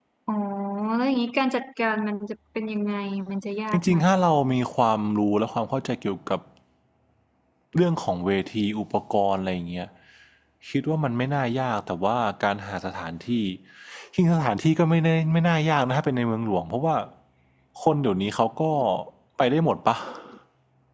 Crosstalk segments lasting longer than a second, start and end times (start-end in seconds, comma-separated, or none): none